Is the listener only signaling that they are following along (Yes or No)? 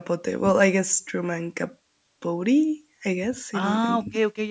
No